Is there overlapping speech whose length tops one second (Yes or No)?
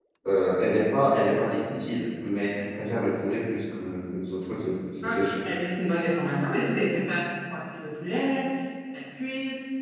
No